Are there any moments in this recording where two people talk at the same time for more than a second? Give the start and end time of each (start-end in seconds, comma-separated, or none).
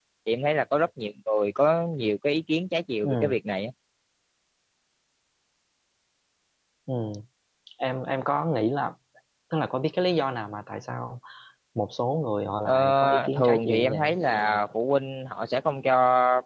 12.6-14.2